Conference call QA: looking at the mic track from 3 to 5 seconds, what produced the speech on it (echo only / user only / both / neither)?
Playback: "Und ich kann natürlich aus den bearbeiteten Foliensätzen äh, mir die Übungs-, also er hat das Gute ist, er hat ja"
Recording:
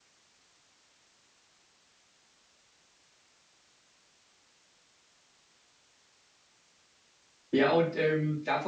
neither